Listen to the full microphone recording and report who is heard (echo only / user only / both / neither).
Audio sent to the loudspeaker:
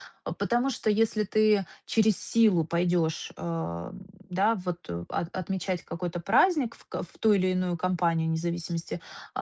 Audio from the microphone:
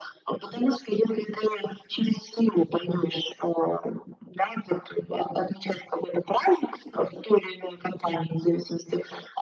echo only